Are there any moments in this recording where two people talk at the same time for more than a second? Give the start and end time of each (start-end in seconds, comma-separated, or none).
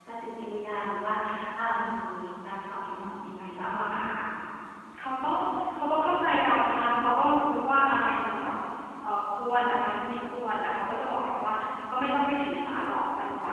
none